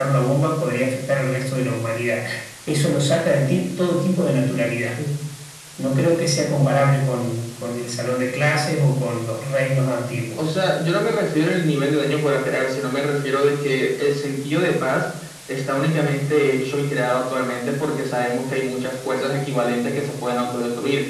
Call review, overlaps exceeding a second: none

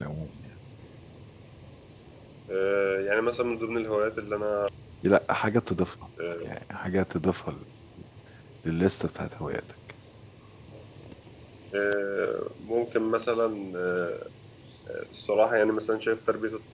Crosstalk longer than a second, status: none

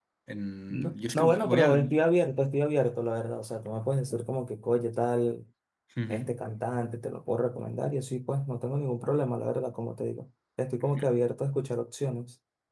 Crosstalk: present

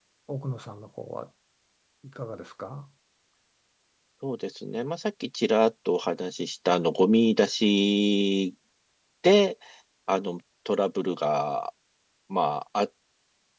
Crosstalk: none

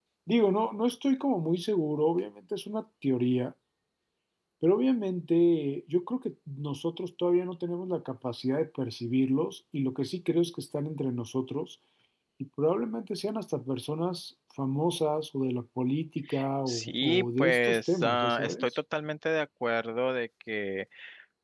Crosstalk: present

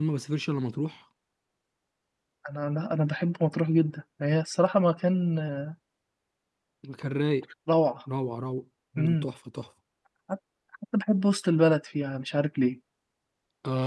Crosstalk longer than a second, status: none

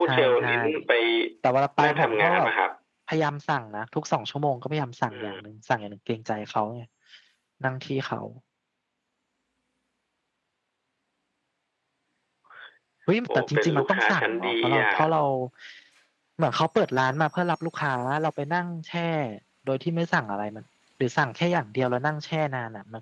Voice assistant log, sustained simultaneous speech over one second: present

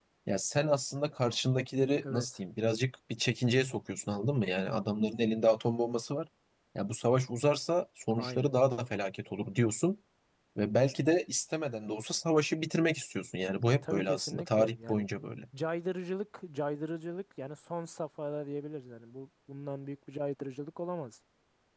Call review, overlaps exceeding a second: present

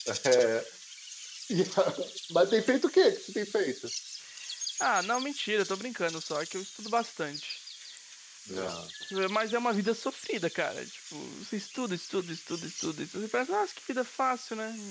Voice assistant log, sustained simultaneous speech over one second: none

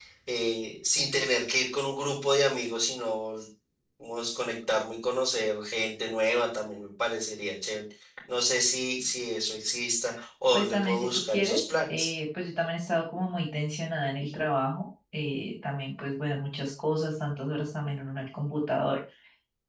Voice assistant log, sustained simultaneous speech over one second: present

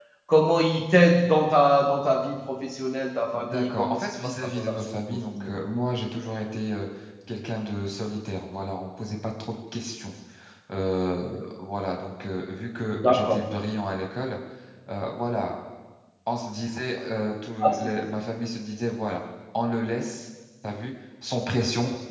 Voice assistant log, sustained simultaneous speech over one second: present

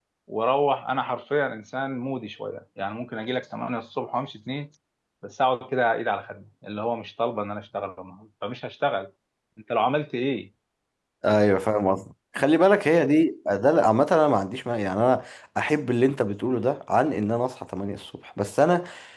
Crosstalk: none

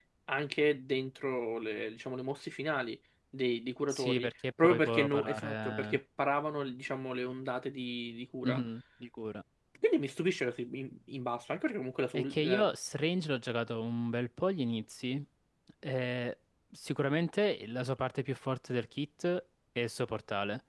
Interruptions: present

